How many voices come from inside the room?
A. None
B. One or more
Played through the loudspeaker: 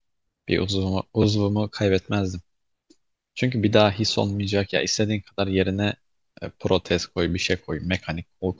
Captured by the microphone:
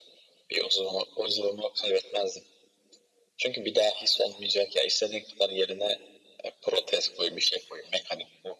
A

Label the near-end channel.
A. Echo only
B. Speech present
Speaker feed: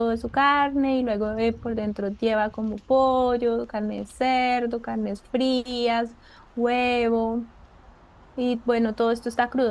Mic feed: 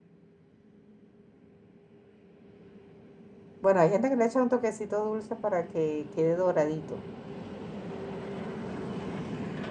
B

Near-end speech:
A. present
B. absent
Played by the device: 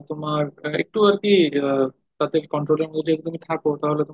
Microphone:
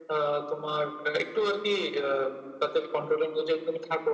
B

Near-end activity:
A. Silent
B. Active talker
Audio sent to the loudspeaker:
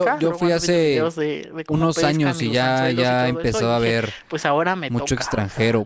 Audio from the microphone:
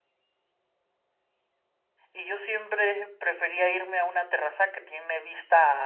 B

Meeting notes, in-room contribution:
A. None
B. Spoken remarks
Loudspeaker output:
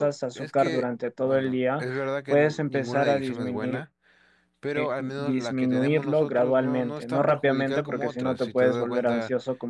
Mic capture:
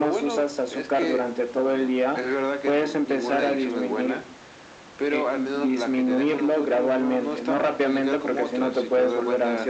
A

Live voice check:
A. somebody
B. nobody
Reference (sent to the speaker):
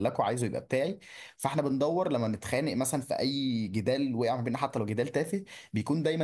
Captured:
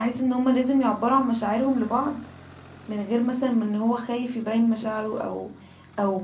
A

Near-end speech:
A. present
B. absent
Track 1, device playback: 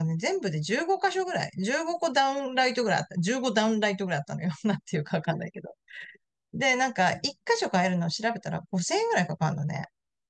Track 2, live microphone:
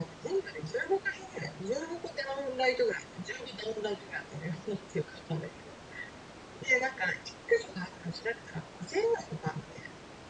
B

